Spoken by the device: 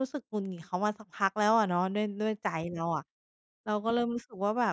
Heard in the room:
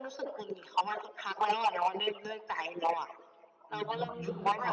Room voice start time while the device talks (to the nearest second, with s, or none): 4 s